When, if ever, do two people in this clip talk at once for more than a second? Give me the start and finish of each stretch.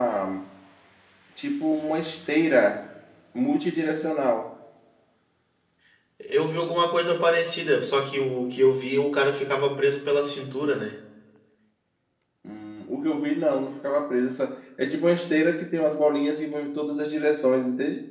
none

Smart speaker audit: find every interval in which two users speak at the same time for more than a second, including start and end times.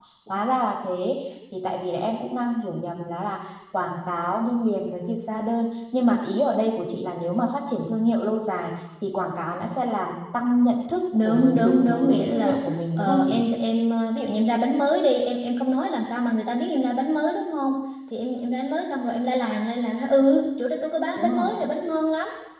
11.1-12.6

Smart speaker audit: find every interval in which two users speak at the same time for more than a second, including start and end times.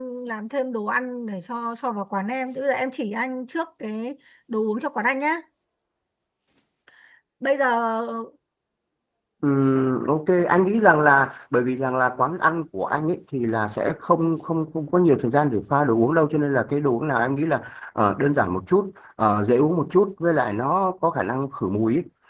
none

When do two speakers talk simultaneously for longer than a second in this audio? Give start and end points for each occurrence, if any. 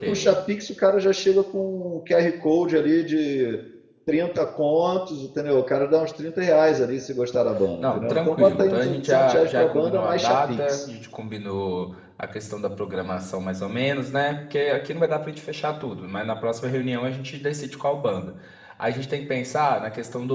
7.8-10.8

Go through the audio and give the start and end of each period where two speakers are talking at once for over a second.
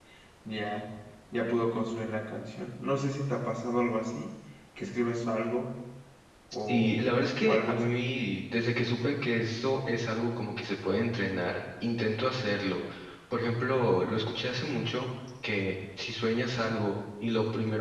none

